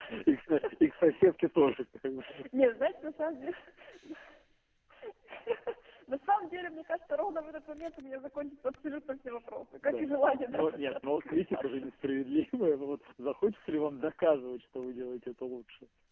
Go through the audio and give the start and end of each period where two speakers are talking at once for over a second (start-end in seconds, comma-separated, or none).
10.5-11.9